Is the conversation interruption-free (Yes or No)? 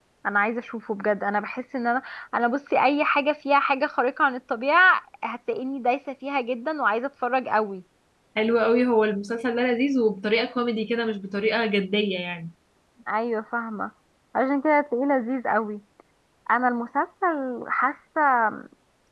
Yes